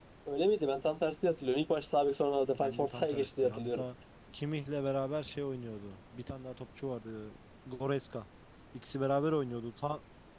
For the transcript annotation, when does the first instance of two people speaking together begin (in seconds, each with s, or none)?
2.6 s